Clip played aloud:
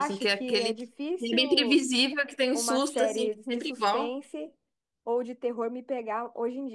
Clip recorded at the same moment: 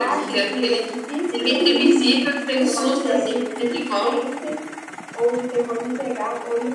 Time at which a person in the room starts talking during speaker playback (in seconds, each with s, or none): none